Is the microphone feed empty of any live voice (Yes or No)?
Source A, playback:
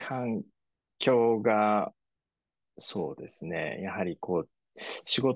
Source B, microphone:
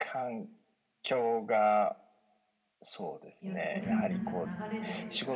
No